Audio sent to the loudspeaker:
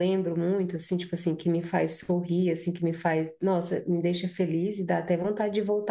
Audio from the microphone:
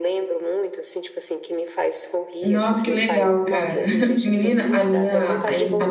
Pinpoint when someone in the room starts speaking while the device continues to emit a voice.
2.4 s

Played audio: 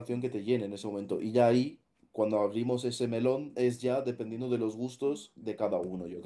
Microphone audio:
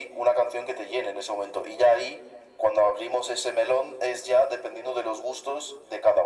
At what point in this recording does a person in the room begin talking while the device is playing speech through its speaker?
none

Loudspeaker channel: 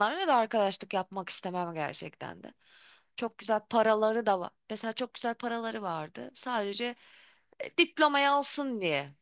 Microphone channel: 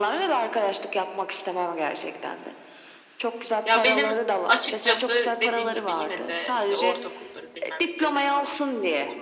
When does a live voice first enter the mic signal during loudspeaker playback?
3.6 s

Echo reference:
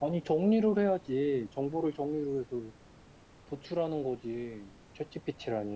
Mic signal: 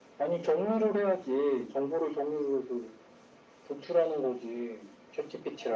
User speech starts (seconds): none

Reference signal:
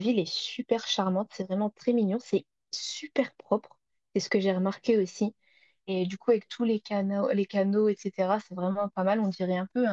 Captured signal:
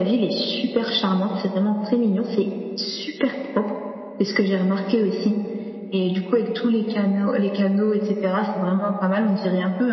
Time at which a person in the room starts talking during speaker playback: none

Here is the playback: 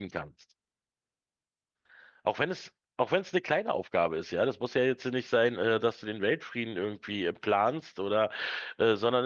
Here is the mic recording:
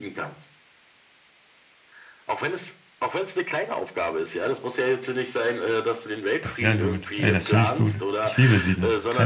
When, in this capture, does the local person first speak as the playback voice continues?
6.4 s

